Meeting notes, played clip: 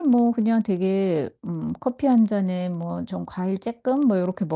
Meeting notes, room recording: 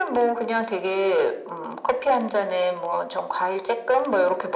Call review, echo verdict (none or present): present